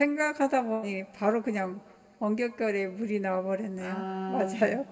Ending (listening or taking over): taking over